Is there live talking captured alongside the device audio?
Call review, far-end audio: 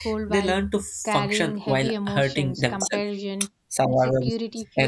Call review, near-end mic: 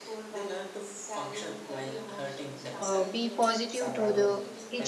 Yes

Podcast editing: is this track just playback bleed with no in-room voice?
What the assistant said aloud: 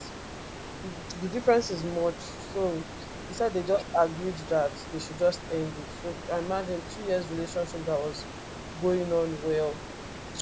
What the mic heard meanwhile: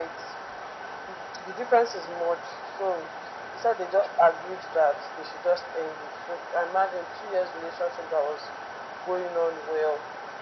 Yes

